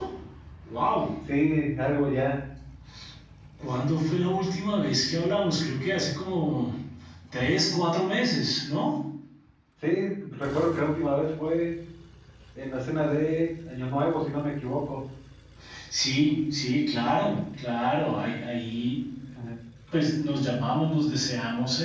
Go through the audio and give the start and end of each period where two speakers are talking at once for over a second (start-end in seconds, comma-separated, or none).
none